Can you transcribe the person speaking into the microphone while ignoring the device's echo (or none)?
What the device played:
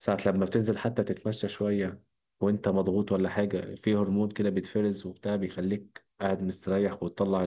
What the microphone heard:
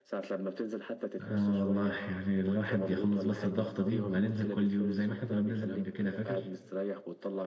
اه والله يعني الواحد يخلص بس الضغطة دي وهننزل كل يوم زي ما احنا كنا بننزل قبل كده فاكر